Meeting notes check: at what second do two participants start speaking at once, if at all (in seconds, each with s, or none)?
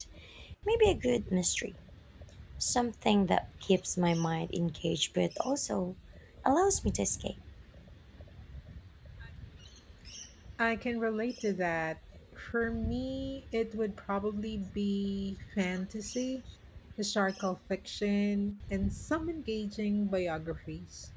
none